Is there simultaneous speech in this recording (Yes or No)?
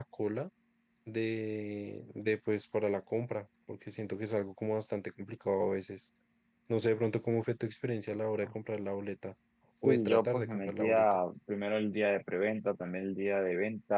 Yes